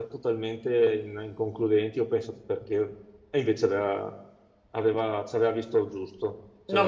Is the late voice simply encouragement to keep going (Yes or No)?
No